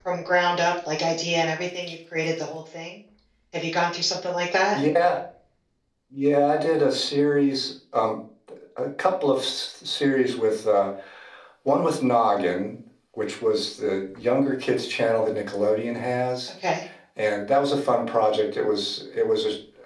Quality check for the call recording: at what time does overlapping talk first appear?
none

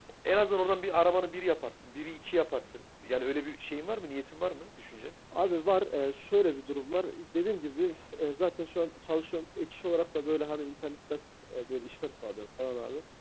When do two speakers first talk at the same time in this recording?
none

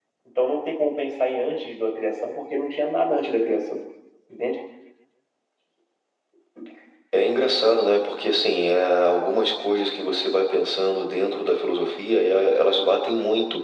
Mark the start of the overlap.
none

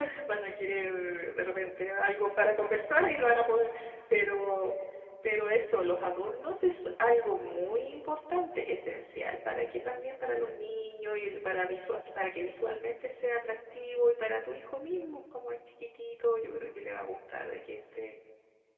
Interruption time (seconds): none

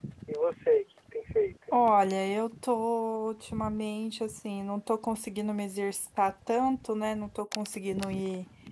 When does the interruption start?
none

